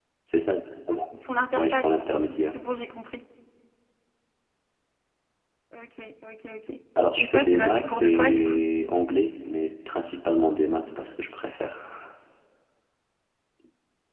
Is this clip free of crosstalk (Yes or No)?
No